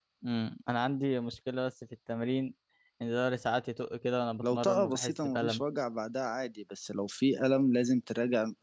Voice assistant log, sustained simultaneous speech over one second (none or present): present